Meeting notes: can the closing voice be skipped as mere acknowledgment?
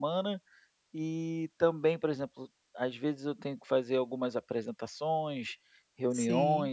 Yes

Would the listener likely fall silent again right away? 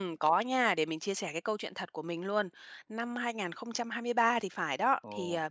Yes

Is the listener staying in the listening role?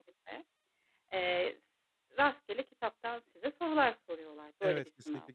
No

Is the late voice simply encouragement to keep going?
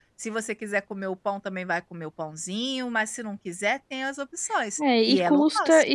No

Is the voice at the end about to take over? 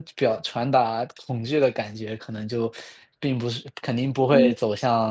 No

